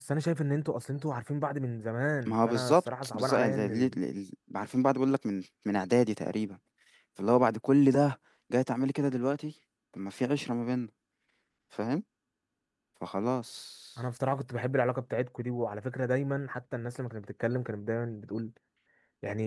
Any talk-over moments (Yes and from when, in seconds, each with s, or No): Yes, from 2.3 s